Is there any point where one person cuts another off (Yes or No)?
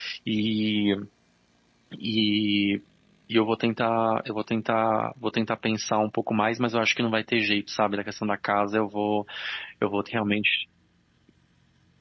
No